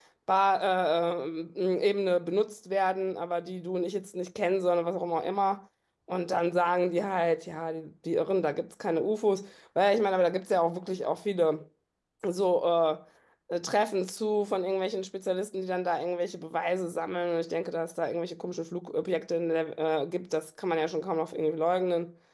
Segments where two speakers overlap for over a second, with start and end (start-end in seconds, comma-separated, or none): none